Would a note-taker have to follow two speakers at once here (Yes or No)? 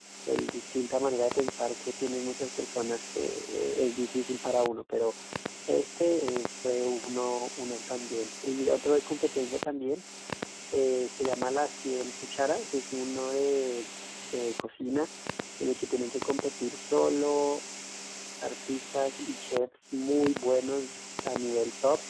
No